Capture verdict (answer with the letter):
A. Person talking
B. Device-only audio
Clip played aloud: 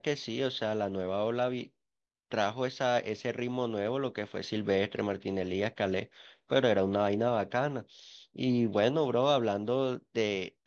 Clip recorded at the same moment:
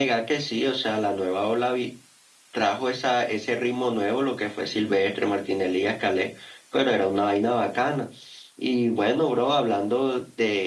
B